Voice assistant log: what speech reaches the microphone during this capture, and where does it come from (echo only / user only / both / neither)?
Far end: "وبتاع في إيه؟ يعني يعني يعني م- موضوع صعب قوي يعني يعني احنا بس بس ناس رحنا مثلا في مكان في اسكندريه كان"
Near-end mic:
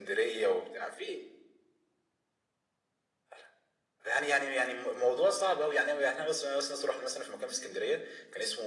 echo only